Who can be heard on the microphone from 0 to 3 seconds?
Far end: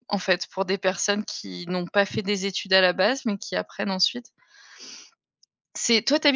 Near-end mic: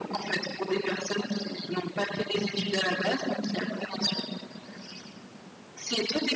echo only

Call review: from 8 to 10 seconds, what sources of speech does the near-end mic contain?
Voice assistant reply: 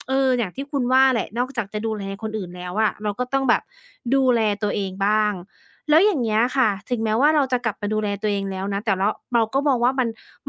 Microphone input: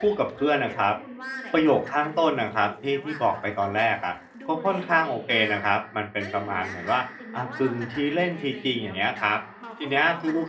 both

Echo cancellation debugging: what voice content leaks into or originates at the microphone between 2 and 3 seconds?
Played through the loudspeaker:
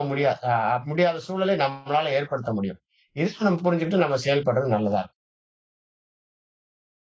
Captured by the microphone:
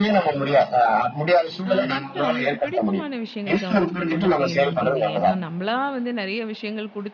both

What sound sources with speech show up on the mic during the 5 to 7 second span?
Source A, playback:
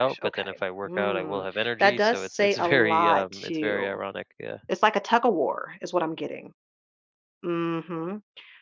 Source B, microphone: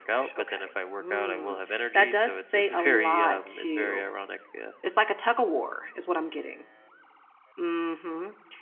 echo only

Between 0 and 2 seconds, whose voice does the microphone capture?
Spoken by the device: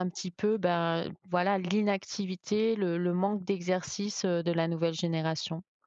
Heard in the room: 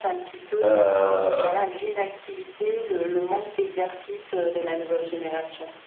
both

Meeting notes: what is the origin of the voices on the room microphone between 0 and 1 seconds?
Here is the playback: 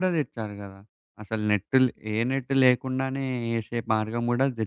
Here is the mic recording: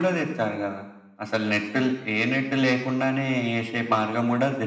echo only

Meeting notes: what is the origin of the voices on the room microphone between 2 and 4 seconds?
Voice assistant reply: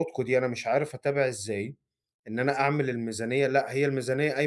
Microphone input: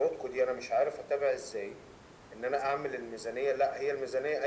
echo only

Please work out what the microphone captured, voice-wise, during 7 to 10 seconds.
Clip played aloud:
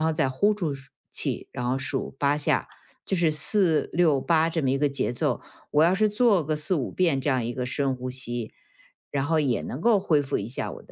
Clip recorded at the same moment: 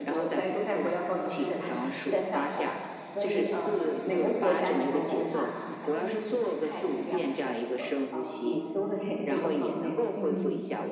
both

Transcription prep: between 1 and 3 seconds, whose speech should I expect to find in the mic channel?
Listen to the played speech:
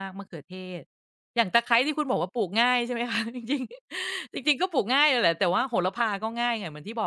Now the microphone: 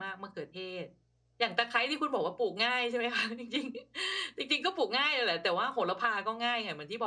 echo only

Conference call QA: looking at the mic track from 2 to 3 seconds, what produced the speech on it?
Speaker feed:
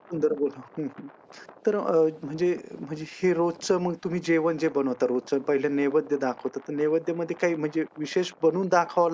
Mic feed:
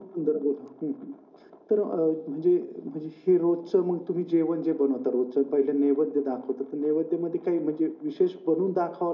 echo only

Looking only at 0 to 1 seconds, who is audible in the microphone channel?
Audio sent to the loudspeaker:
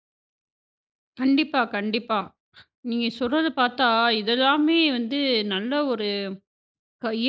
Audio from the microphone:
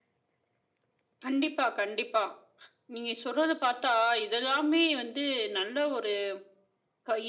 neither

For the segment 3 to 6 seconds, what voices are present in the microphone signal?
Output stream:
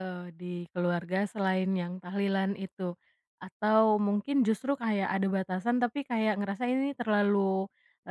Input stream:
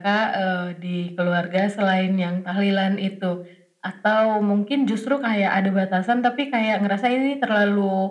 echo only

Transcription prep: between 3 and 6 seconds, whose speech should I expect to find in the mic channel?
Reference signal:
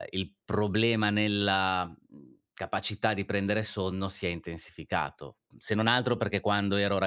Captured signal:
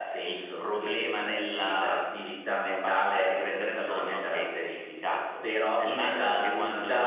both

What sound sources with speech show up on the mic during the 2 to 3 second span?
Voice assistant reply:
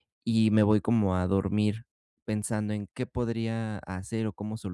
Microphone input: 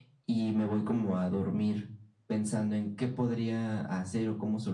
echo only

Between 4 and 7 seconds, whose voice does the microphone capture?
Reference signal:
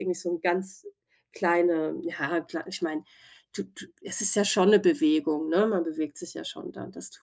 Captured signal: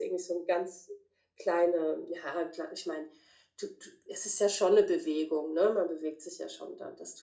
echo only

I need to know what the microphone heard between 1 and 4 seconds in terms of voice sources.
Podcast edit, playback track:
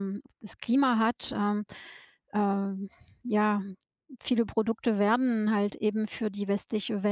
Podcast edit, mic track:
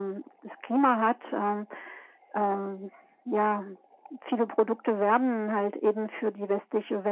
echo only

